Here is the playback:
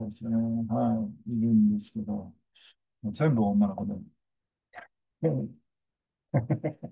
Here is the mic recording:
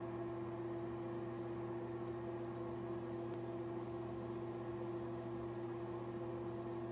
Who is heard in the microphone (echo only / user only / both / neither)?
neither